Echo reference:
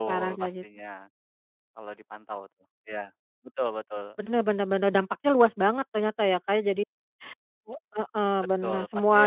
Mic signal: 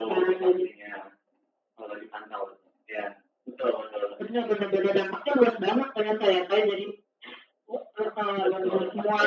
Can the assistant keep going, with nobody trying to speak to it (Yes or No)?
Yes